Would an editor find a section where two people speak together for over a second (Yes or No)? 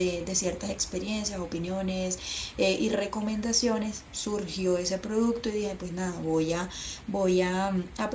No